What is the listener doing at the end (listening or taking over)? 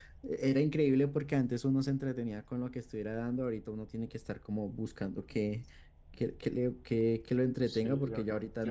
taking over